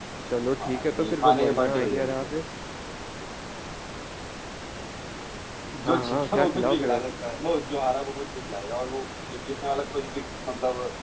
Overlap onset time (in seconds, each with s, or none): 0.6 s